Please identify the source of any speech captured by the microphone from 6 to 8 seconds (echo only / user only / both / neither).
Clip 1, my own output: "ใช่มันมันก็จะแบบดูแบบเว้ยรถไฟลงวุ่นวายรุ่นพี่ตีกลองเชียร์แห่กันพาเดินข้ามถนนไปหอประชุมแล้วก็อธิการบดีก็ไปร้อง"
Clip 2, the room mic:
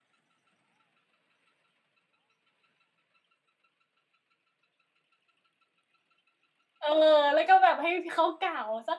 user only